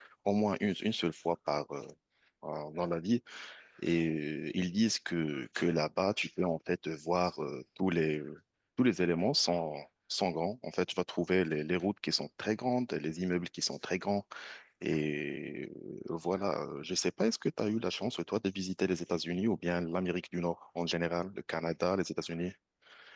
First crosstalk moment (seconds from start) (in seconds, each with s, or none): none